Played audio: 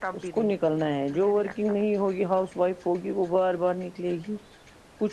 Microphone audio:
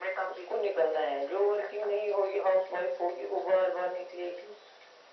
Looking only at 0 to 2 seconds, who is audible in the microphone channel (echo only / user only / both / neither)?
echo only